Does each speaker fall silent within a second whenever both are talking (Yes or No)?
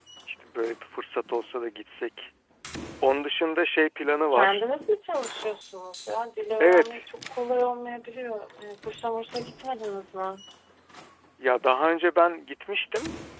Yes